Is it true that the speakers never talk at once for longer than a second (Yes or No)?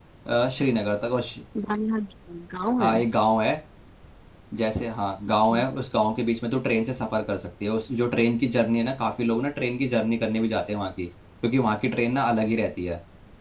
Yes